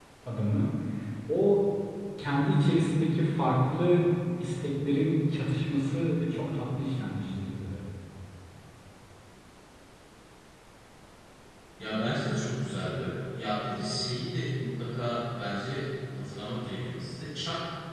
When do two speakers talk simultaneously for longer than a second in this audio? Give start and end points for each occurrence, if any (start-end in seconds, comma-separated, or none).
none